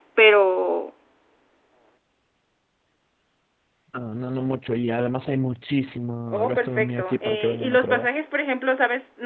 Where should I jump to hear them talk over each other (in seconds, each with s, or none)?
6.3 s